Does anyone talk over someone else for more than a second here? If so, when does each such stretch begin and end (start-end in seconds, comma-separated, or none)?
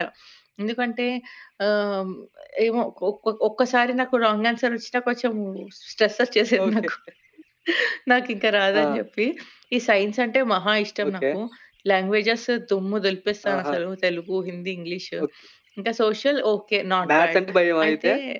none